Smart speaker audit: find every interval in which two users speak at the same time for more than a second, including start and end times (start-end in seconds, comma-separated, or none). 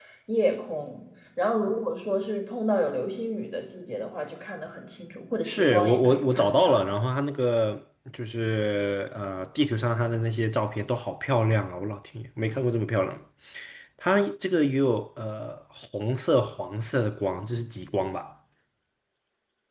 5.4-6.9